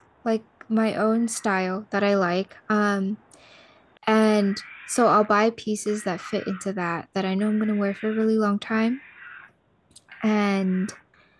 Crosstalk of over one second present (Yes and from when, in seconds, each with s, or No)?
No